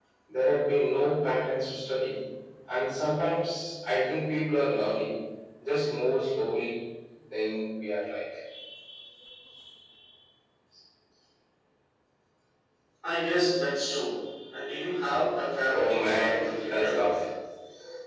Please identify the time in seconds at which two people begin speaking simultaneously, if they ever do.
16 s

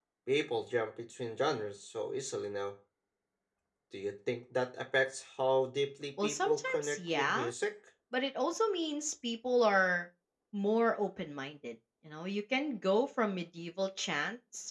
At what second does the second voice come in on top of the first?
6 s

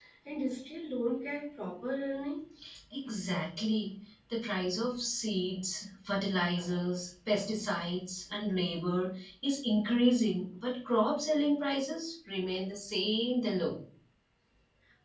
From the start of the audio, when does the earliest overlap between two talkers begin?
none

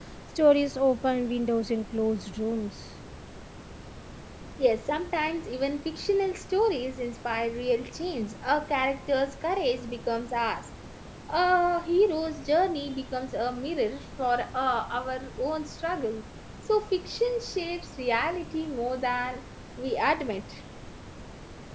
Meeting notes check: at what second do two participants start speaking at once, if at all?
none

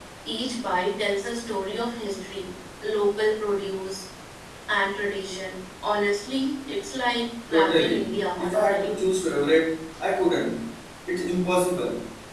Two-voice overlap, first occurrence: 8 s

